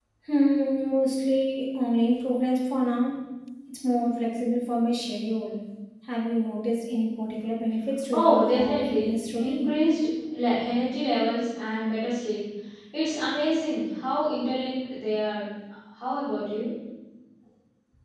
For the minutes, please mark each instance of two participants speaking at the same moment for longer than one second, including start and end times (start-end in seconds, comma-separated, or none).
8.1-9.7